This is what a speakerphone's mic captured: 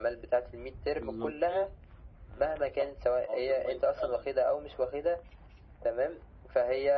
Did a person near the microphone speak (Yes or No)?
Yes